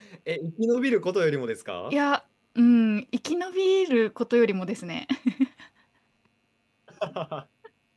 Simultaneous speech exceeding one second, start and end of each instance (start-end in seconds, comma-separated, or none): none